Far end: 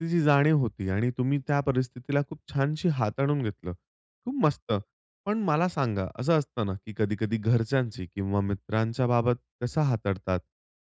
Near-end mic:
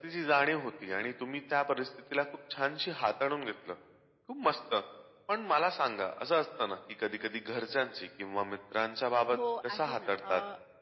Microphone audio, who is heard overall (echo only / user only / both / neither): both